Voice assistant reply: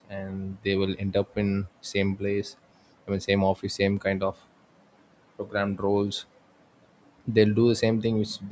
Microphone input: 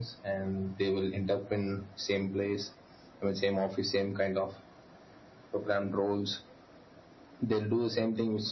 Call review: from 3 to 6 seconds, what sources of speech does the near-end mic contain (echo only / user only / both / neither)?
echo only